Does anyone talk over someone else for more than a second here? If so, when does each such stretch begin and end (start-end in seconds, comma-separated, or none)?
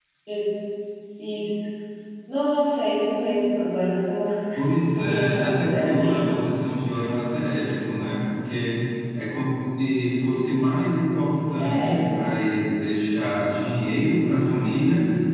4.9-6.5